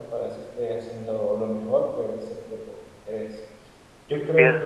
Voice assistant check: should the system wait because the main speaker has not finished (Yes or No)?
Yes